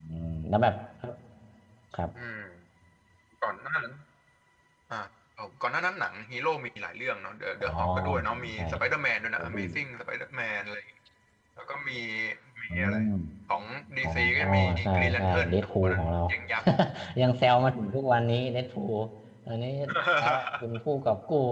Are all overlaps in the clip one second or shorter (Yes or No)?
No